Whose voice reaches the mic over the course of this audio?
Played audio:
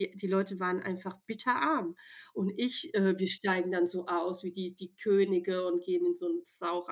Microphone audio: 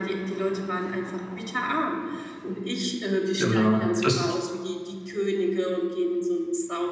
both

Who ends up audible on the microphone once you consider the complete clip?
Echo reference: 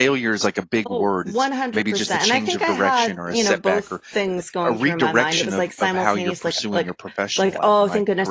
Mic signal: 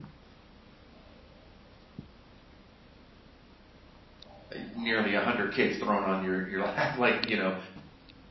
user only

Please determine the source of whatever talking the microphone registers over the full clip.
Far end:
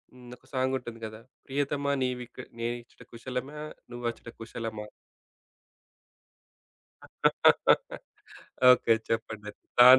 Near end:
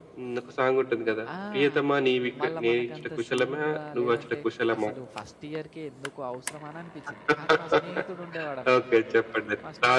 both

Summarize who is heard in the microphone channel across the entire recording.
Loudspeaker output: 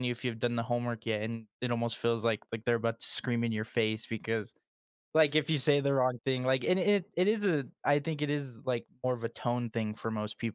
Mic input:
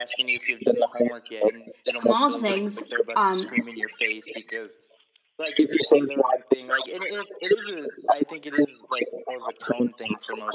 both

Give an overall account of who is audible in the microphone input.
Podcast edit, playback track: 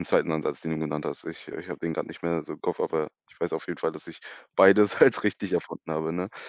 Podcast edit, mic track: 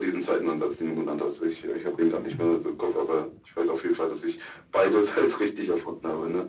both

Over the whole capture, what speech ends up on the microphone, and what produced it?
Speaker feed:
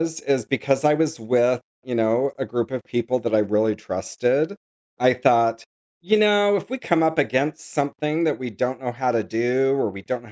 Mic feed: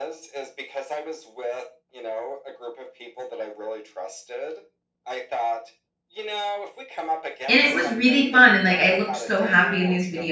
both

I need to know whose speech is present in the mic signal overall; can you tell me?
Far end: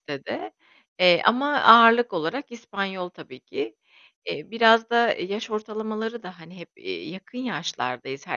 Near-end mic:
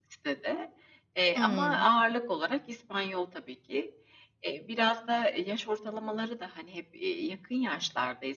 both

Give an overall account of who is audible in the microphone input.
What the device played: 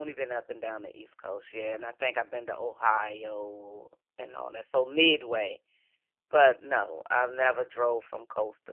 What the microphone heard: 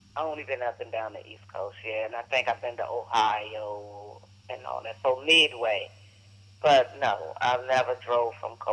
echo only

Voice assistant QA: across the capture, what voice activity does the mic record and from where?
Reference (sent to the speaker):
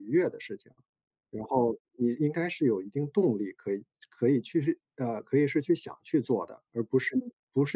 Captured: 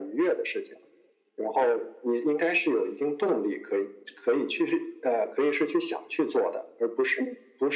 echo only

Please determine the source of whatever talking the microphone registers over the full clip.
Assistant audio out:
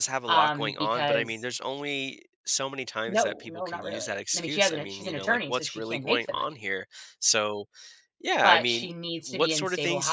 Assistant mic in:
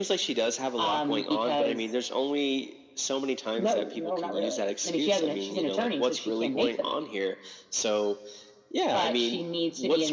echo only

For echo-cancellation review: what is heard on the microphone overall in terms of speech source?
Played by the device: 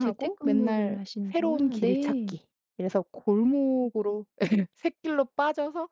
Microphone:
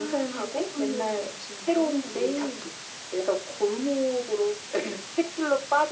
echo only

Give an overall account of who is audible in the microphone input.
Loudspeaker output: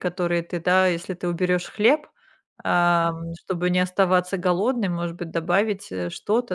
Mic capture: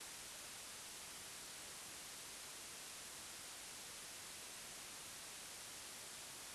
neither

